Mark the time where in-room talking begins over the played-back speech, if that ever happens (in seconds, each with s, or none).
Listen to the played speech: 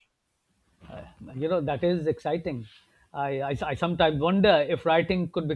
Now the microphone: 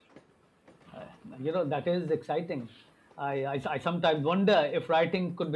none